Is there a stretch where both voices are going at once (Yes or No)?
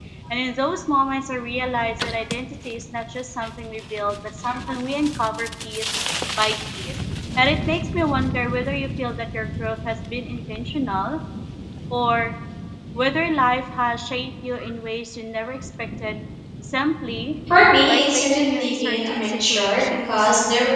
Yes